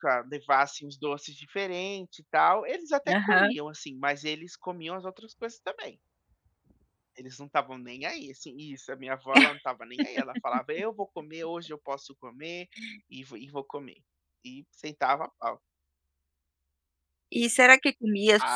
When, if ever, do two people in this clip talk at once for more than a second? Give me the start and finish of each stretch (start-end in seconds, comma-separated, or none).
none